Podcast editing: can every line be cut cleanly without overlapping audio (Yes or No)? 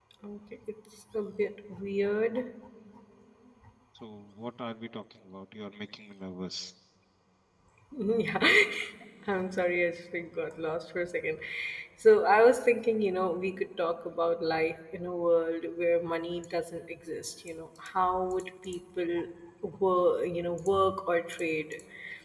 Yes